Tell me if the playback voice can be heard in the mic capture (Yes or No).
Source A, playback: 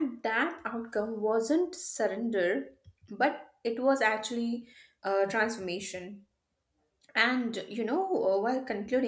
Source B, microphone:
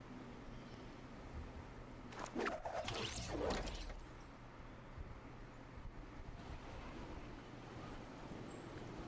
No